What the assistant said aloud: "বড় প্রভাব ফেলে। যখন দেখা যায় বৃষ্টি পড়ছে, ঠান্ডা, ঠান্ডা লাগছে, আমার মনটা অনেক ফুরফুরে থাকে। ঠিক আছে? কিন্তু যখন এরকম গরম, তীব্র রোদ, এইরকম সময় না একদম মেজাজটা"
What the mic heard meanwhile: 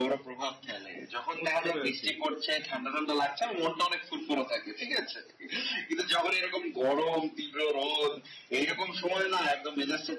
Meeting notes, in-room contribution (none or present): present